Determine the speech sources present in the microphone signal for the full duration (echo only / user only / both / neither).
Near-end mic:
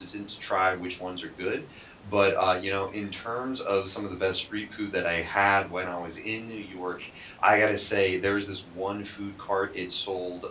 user only